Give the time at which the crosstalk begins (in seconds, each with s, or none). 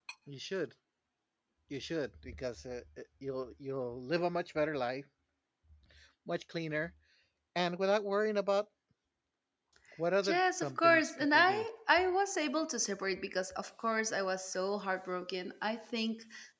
10.3 s